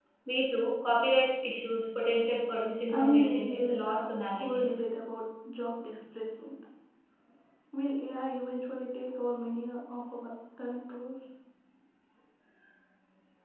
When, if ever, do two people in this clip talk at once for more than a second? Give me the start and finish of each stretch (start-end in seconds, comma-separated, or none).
2.9-4.6